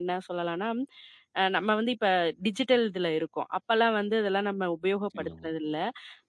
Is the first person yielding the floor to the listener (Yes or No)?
No